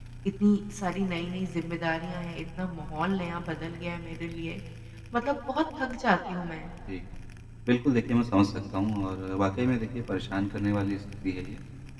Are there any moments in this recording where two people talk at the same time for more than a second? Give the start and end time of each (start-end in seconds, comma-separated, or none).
none